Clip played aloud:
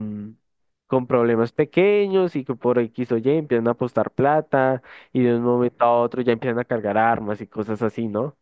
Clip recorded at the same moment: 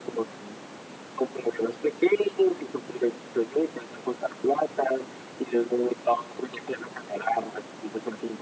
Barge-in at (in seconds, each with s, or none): none